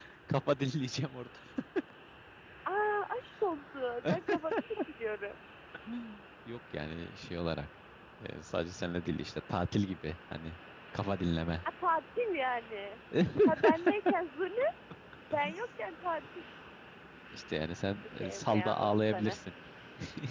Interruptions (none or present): present